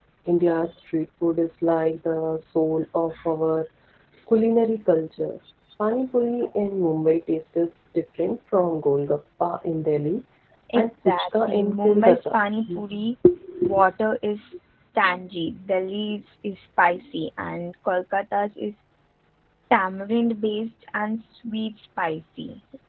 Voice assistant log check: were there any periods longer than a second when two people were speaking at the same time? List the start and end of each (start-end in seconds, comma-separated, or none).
10.8-12.3